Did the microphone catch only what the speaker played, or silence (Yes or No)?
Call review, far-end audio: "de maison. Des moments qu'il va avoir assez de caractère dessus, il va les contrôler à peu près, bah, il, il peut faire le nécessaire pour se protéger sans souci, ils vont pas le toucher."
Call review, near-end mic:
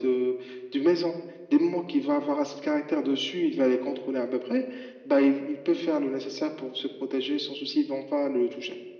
Yes